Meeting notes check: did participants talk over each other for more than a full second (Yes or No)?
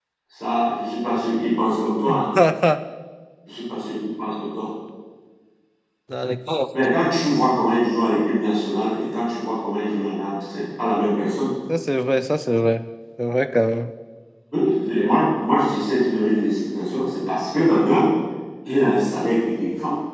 No